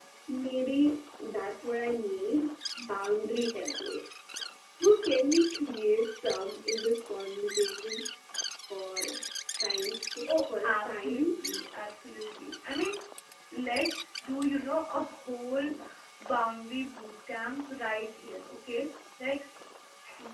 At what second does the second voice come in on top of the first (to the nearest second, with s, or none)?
10 s